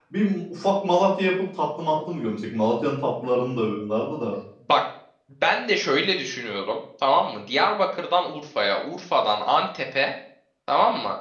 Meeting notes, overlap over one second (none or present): none